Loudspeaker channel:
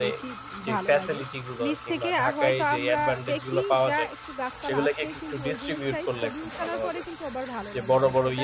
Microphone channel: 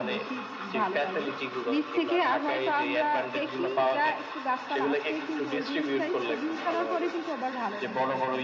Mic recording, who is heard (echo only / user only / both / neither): echo only